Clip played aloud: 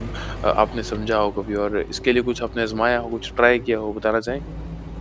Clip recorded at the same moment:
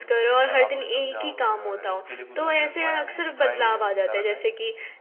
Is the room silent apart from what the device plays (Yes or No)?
No